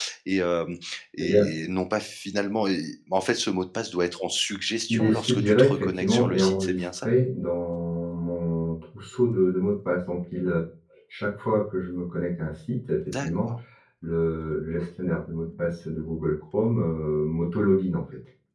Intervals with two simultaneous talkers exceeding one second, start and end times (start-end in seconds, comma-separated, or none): 4.9-7.1